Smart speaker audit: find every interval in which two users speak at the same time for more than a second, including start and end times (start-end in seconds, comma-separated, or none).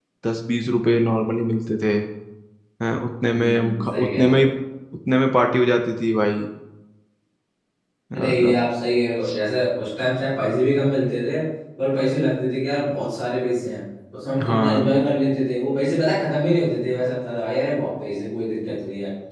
3.2-4.5